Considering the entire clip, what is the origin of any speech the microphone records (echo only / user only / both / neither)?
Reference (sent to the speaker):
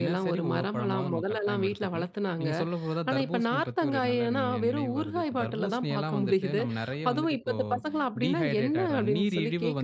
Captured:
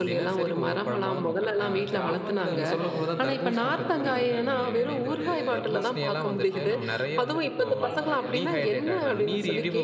both